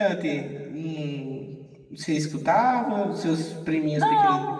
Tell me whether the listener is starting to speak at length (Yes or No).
Yes